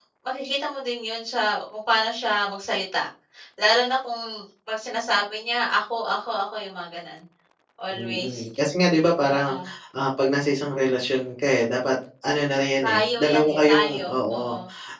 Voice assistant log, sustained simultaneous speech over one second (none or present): present